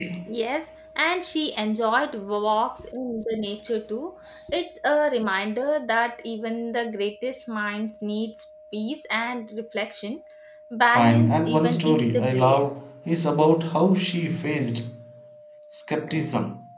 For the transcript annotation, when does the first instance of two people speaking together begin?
10.9 s

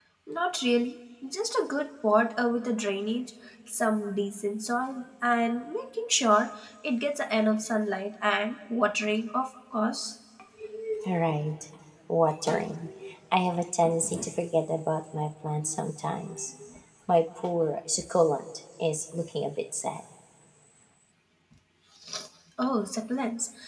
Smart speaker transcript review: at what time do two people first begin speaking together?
none

